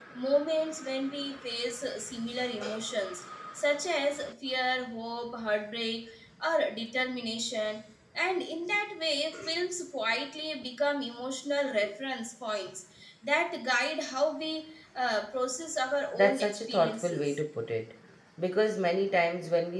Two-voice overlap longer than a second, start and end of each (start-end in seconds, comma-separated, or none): 16.1-17.4